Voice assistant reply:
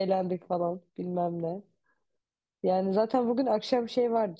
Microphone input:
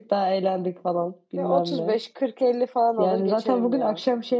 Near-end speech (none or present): present